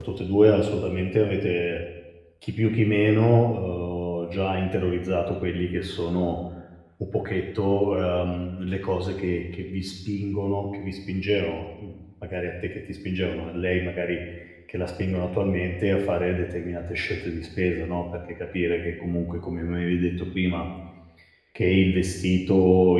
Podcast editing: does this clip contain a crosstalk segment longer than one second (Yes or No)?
No